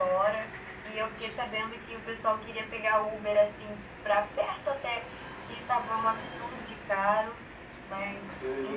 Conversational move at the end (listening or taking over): listening